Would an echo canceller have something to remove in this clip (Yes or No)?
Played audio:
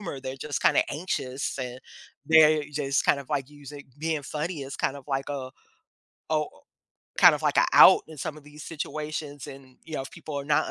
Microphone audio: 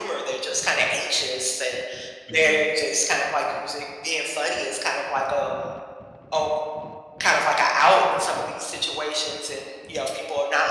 Yes